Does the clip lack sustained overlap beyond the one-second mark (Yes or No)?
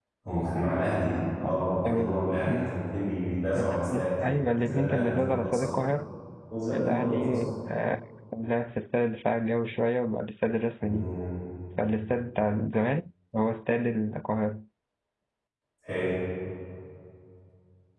No